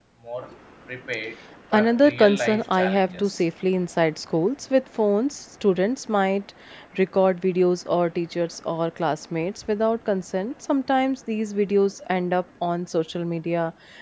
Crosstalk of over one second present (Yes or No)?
Yes